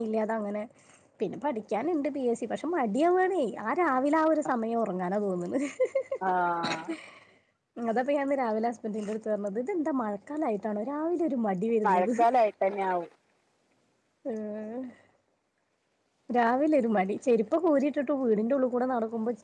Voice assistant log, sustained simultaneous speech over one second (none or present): none